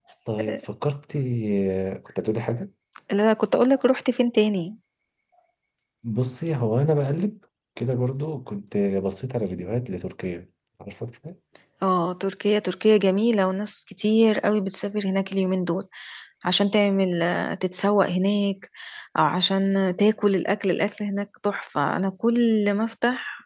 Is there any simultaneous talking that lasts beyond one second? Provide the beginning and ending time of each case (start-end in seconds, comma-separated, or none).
none